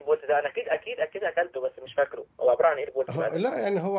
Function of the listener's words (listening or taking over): taking over